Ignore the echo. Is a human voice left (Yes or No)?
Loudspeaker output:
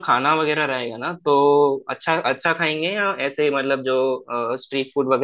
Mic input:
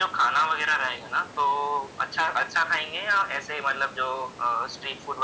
No